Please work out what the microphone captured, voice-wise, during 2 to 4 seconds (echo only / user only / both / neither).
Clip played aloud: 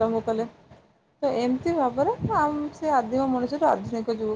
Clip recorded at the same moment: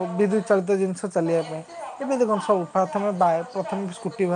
both